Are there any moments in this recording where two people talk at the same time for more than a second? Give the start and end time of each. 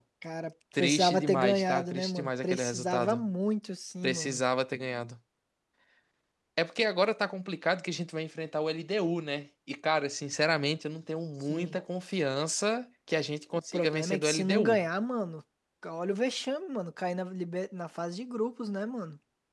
0.8-3.2, 13.5-14.8

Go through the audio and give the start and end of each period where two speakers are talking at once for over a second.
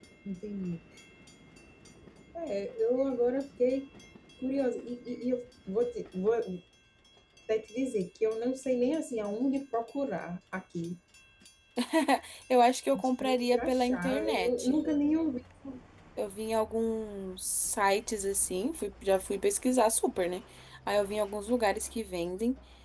12.9-14.8

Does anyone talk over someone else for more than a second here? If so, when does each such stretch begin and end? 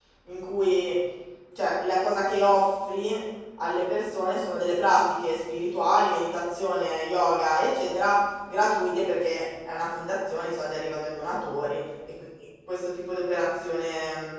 none

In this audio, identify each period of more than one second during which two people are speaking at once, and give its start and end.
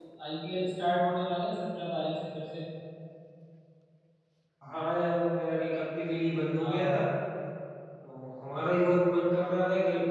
none

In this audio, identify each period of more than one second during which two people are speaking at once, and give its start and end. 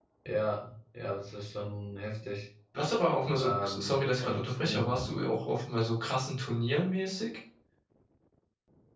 3.4-5.1

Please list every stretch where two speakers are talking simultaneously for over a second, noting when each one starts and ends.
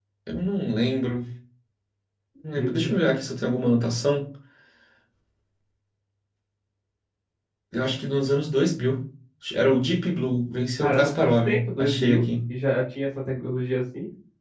10.8-12.3

